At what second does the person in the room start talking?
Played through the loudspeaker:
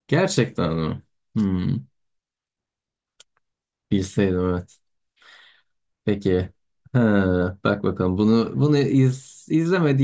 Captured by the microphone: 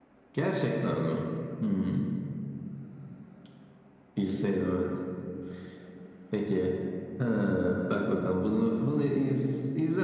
none

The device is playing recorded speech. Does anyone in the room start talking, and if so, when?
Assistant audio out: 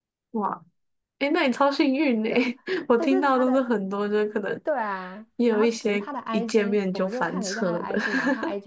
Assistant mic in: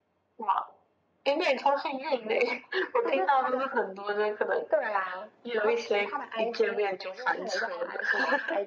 none

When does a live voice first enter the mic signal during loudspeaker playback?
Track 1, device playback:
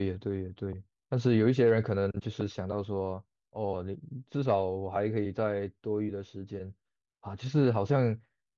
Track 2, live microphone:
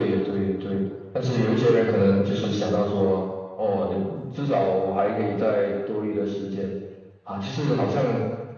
none

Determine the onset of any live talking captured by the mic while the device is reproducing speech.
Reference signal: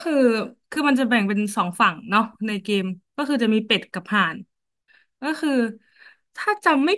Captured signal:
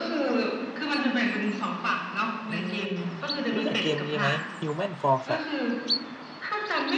2 s

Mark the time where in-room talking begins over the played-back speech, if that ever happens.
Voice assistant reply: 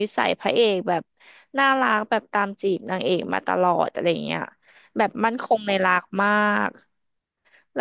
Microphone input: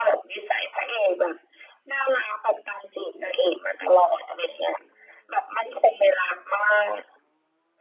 none

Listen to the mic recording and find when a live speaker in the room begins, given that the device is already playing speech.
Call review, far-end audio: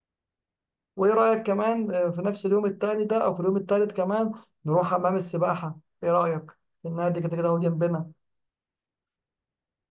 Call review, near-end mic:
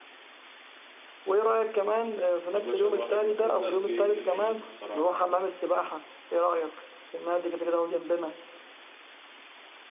3 s

